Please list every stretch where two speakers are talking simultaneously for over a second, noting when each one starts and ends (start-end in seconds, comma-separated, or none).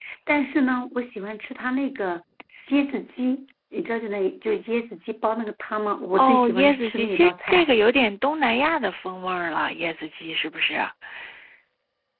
6.2-7.7